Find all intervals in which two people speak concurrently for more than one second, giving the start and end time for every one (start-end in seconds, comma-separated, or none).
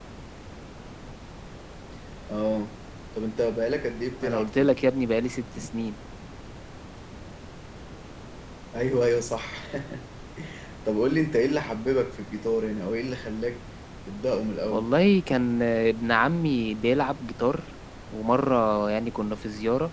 none